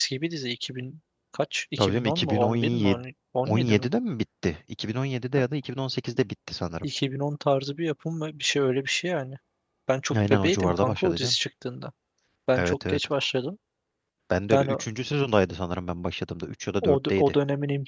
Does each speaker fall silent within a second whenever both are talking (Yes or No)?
No